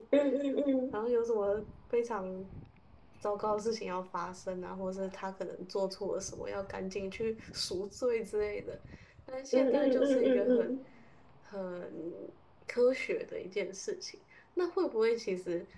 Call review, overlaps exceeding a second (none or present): present